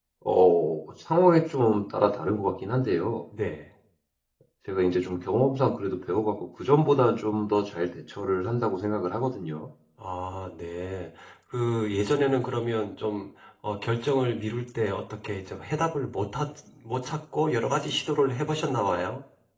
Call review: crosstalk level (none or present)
none